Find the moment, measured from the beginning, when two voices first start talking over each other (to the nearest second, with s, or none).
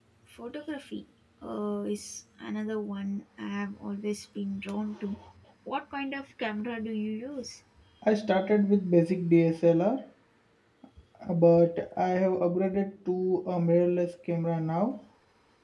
none